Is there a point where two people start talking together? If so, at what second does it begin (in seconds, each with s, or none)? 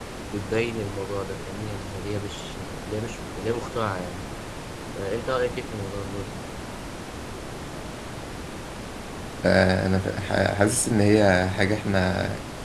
none